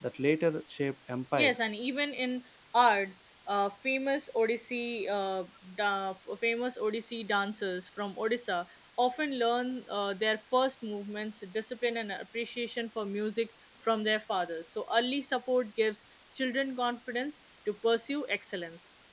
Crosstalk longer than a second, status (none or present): none